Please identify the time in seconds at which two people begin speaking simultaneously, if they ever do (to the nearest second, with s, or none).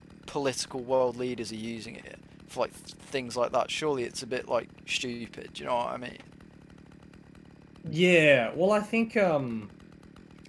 none